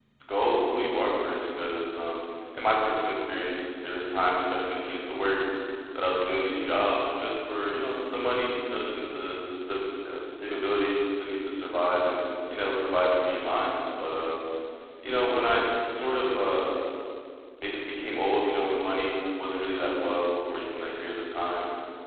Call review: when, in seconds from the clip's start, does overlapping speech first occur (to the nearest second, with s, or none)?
none